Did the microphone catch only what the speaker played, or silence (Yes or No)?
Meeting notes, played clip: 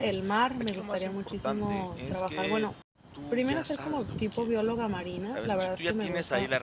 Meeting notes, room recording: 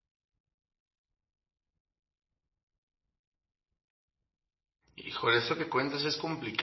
No